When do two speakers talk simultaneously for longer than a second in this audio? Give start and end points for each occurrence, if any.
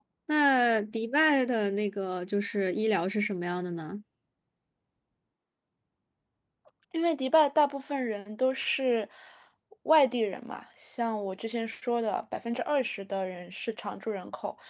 none

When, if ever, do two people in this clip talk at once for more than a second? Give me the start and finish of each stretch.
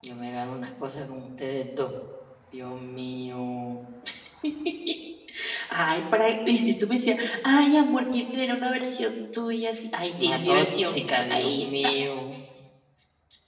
10.2-11.9

